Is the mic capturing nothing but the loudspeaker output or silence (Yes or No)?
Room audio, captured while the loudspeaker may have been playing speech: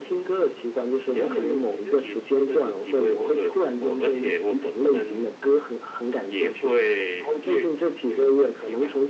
Yes